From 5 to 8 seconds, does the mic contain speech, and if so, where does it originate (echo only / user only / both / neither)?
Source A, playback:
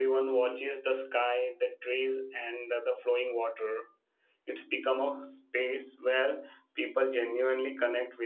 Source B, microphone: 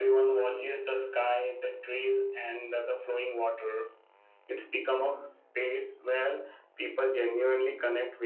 echo only